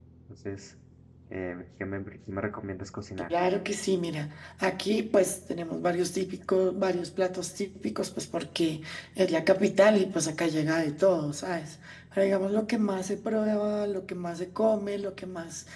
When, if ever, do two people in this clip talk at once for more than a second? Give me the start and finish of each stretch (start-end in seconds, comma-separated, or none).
none